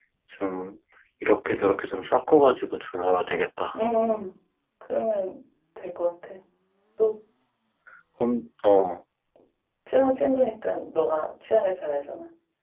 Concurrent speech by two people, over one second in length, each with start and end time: none

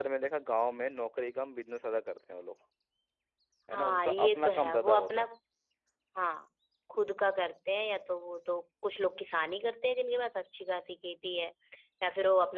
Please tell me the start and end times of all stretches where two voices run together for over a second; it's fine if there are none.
3.7-5.2

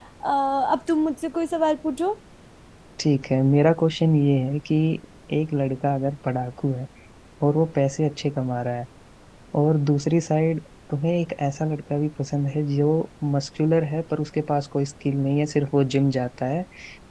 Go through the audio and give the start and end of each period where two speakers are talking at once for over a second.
none

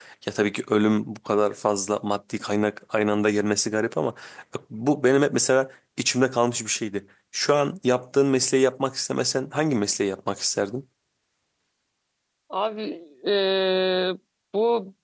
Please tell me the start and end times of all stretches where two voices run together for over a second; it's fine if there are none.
none

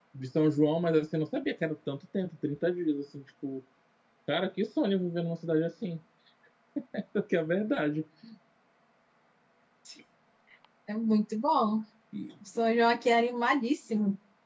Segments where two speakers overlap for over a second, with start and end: none

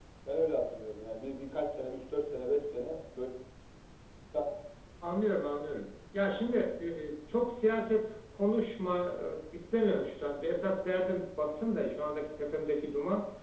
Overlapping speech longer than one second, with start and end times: none

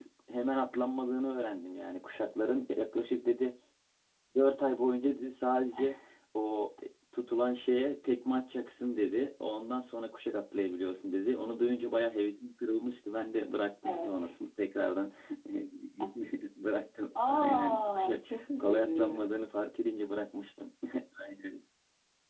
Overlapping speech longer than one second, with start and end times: 17.3-19.1

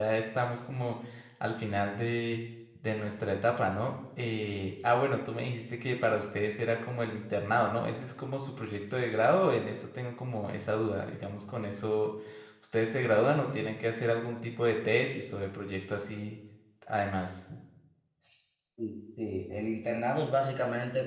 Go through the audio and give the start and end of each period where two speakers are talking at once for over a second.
none

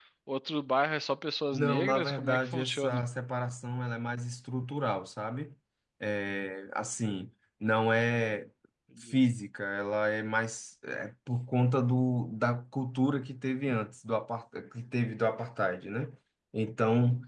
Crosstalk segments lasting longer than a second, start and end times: 1.5-3.0

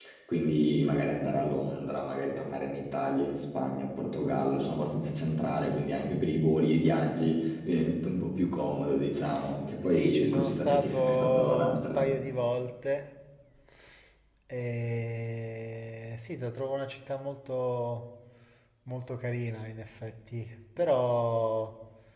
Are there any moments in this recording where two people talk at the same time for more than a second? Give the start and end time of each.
9.8-12.1

